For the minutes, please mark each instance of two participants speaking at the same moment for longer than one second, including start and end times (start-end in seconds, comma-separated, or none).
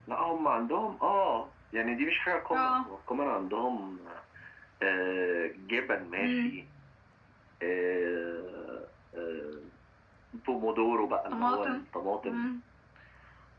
none